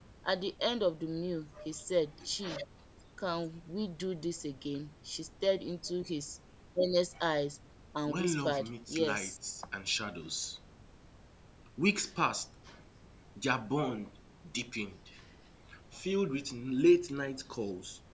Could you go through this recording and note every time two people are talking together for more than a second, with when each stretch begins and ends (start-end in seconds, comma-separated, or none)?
8.1-9.3